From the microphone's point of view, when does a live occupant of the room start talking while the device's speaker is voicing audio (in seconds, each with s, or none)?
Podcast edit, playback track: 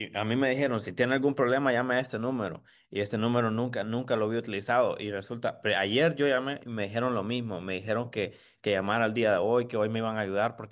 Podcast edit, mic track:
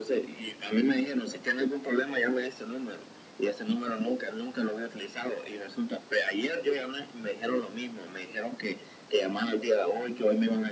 none